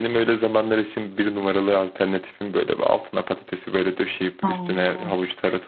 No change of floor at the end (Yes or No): Yes